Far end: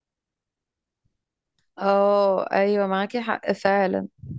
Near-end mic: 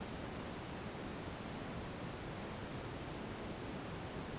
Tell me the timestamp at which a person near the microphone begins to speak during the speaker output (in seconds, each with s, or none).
none